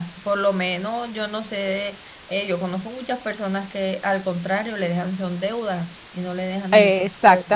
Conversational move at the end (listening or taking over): taking over